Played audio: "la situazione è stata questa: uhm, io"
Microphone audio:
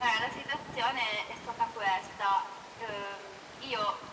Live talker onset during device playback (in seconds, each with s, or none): none